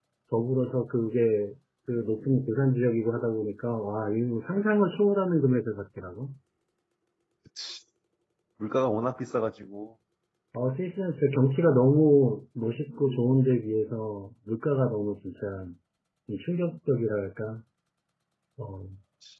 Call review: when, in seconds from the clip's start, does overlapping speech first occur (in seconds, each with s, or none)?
none